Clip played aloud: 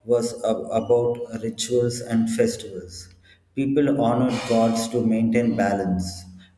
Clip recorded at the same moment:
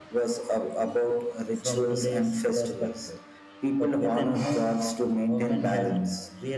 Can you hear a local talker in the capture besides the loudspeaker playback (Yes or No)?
Yes